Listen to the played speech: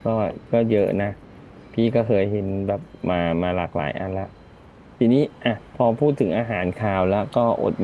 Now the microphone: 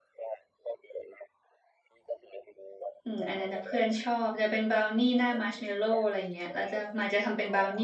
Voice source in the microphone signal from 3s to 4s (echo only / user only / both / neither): both